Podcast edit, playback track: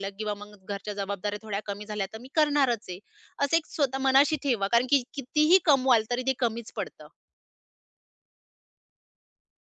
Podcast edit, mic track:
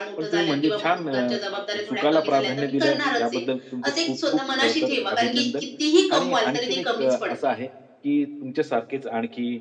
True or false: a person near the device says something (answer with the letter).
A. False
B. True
B